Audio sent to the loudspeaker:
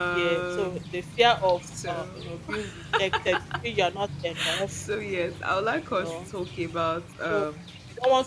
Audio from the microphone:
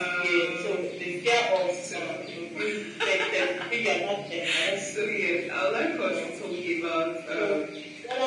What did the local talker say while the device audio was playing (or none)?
none